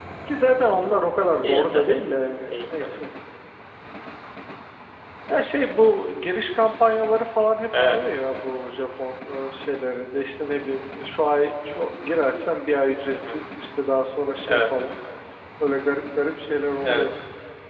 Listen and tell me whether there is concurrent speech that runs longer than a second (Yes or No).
No